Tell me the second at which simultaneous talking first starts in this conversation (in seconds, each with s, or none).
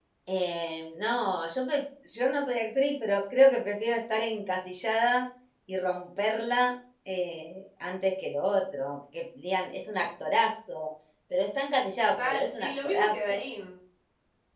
12.0 s